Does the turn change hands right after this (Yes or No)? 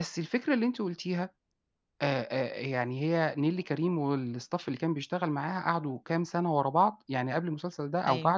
No